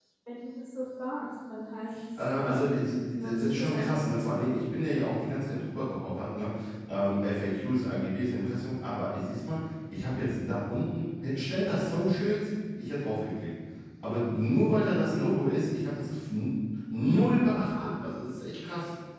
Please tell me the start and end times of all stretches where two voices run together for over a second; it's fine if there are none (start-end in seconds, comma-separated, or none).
3.1-4.5